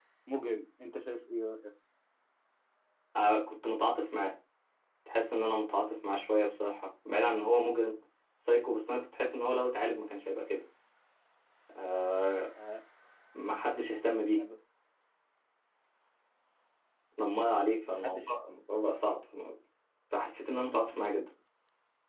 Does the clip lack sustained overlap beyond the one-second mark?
Yes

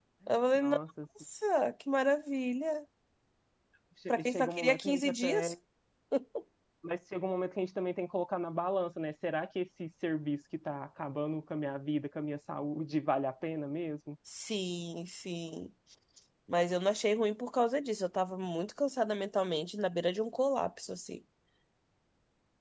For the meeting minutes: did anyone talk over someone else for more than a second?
Yes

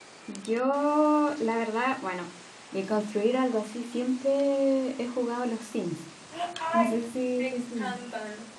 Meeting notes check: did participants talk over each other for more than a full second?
No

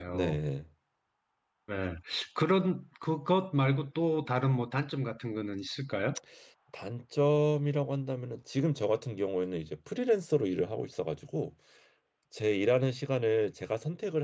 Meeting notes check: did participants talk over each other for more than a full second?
No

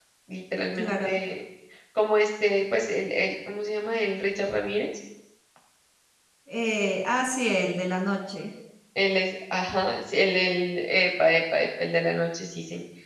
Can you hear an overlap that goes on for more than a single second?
No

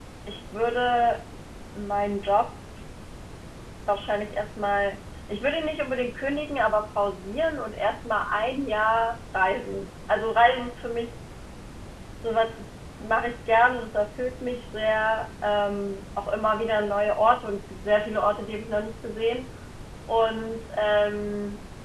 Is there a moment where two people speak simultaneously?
No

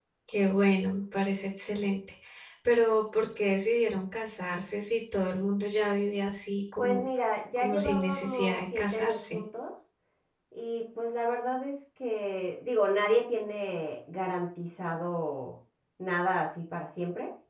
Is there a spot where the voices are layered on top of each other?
Yes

